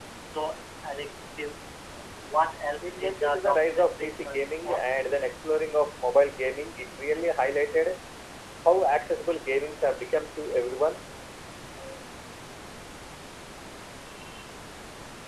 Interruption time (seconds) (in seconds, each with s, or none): 2.8 s